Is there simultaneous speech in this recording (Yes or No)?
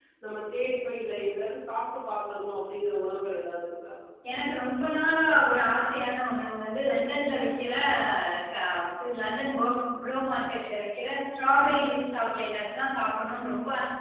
No